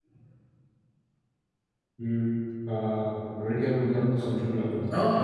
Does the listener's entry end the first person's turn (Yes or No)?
Yes